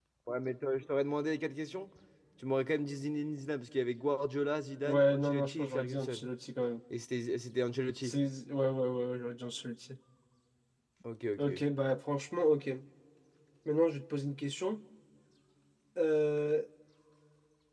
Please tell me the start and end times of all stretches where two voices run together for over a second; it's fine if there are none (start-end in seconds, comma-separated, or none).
4.8-6.2